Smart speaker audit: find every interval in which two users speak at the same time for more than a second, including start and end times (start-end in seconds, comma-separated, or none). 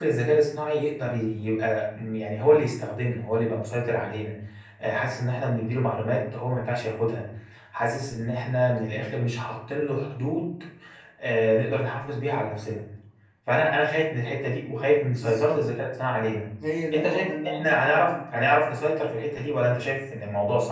16.9-18.5